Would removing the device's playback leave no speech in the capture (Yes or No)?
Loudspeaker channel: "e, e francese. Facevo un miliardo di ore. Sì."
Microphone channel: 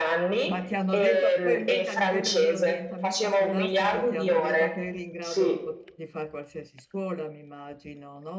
No